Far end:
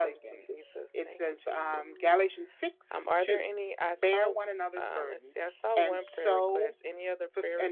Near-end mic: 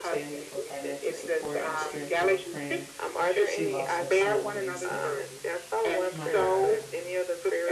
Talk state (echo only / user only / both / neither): both